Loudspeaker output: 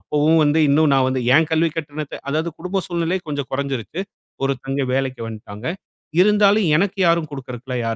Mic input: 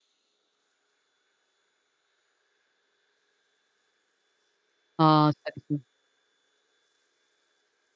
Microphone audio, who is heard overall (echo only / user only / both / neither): user only